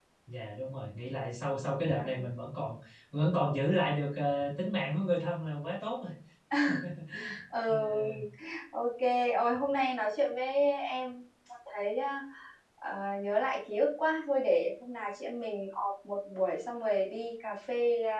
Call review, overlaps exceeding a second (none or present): none